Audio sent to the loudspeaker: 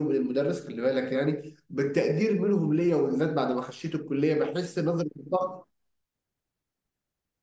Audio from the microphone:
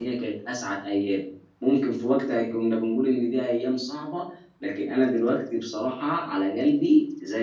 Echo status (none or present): none